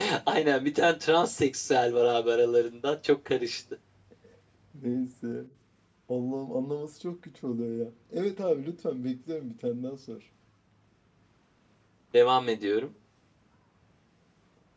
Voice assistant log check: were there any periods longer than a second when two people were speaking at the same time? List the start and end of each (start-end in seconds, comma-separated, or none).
none